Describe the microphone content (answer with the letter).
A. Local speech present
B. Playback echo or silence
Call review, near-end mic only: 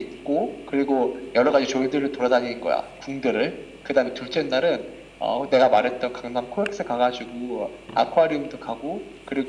B